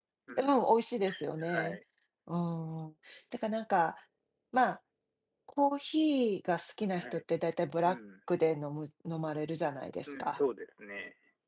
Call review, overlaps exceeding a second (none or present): none